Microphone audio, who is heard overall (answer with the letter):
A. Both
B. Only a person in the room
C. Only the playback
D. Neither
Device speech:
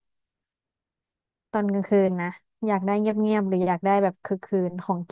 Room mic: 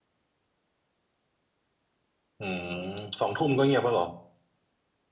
B